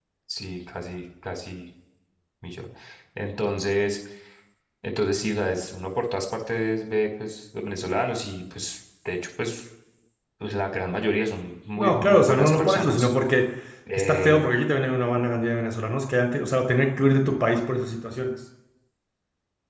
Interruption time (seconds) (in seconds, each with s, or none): 11.8 s